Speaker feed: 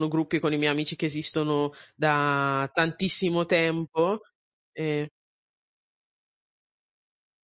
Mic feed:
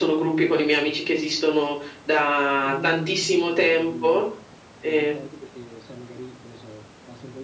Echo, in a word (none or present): present